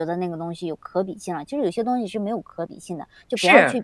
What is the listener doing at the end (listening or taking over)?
taking over